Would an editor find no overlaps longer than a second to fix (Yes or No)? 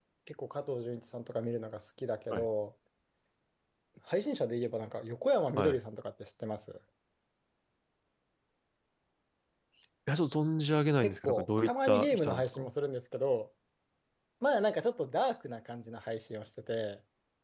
No